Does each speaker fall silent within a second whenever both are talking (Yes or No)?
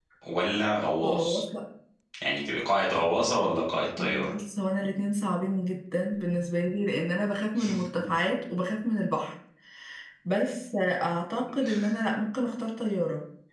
Yes